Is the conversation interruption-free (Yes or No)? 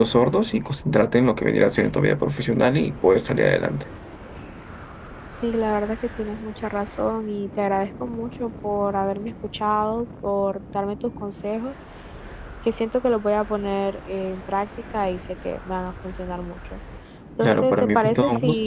No